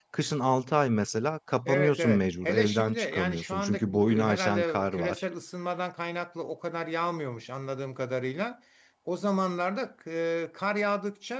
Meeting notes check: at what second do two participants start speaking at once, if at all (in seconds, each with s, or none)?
1.7 s